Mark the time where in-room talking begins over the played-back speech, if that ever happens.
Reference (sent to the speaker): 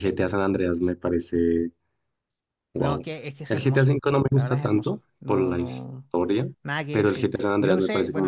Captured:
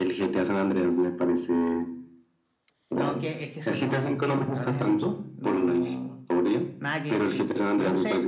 none

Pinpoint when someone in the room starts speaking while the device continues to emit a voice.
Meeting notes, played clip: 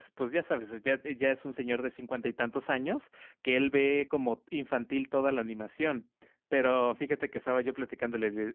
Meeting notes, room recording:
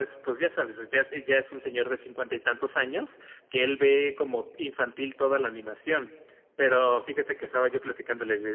none

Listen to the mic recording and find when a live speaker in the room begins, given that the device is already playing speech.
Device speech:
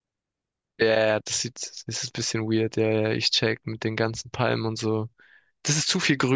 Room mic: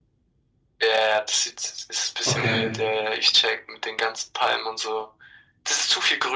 2.3 s

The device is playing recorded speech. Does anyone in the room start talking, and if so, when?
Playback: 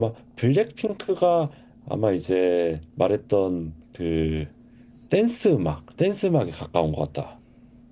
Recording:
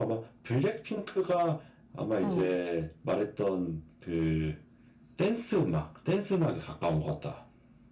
2.2 s

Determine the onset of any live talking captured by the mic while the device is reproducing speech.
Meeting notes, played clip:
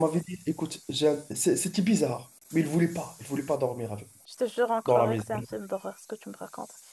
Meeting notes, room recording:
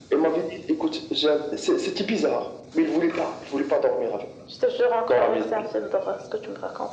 none

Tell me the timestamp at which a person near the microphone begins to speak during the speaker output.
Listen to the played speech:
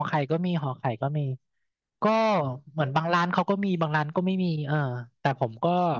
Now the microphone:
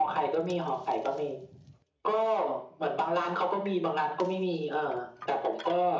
none

